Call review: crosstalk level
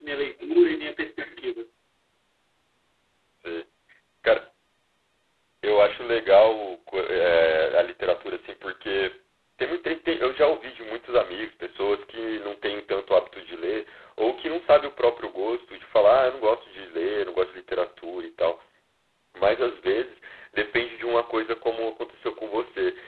none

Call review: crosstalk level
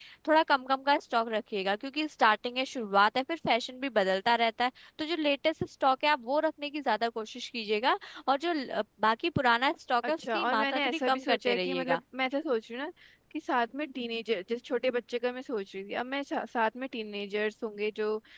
present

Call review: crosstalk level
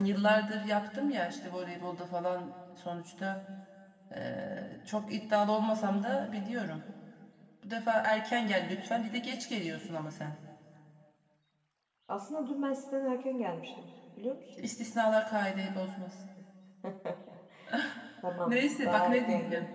present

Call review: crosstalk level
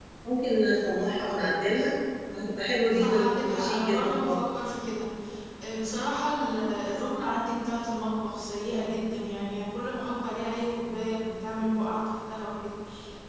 present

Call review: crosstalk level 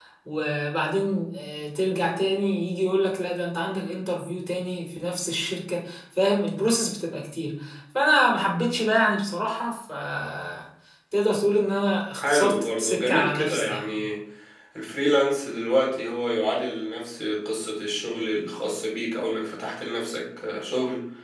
present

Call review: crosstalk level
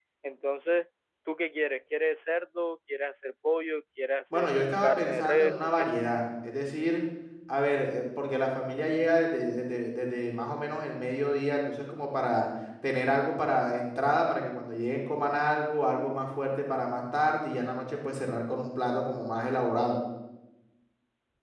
present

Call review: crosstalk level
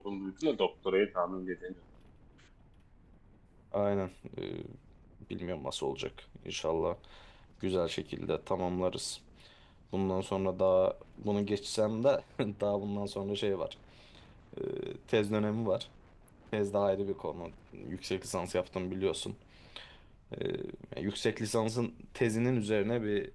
none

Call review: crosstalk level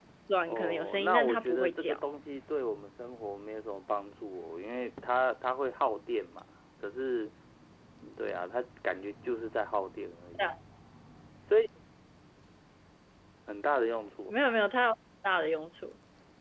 present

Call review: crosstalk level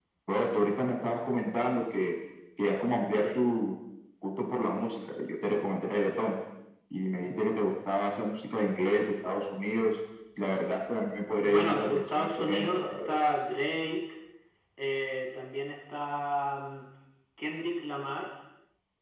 present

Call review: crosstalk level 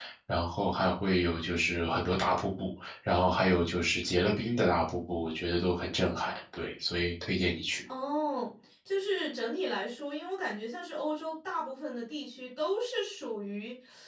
none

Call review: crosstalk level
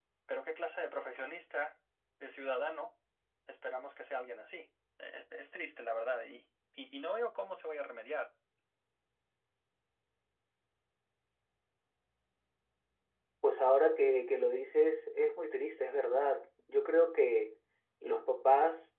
none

